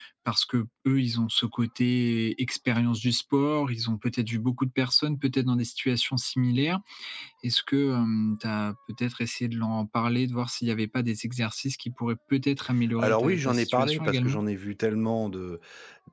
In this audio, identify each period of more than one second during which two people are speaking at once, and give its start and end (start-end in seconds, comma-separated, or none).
13.0-14.4